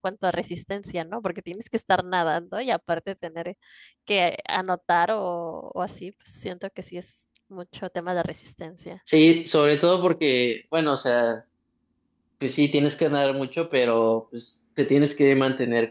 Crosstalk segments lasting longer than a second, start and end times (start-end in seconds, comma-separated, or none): none